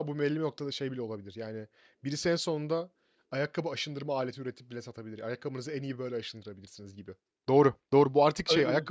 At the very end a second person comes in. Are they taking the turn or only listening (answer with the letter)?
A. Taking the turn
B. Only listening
B